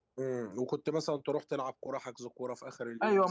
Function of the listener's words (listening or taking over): taking over